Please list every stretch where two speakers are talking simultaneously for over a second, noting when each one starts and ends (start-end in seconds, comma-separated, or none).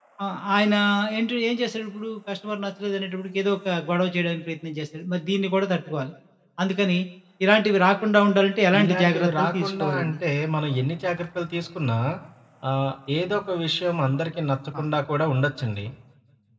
8.8-10.1